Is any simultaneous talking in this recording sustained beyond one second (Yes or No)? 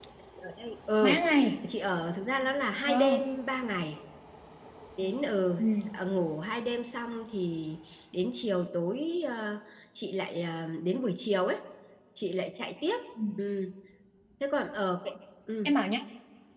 No